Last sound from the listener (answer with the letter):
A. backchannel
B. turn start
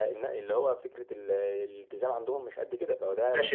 B